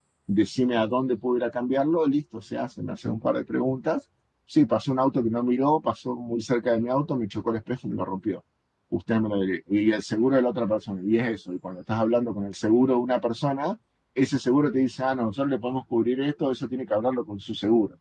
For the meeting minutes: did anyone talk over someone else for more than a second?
No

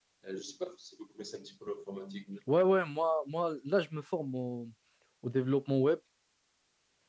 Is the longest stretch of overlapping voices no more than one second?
Yes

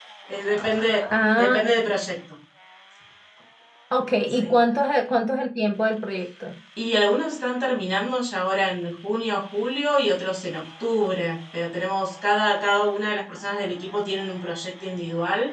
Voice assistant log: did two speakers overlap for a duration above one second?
No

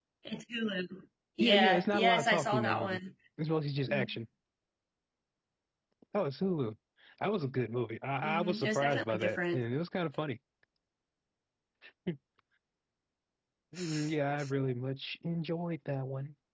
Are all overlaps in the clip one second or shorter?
No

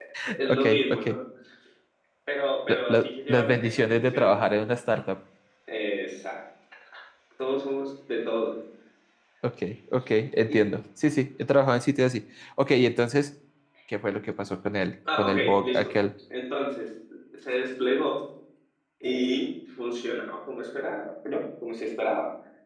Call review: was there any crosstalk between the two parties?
Yes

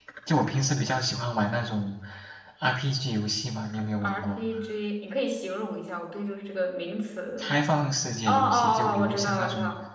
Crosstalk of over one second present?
Yes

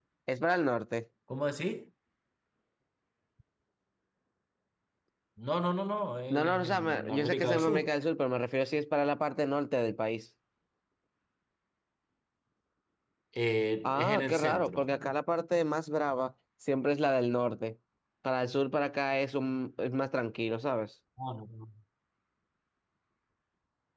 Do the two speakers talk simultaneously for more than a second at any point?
Yes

